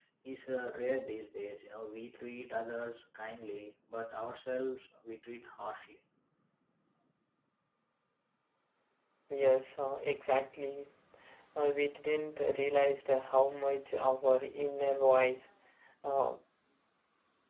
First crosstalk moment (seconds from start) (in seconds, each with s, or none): none